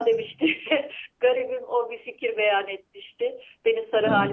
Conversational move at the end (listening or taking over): listening